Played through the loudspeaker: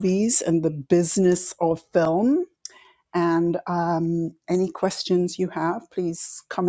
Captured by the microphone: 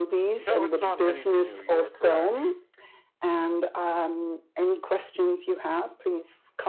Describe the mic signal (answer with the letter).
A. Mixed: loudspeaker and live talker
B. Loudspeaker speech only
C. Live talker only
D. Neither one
A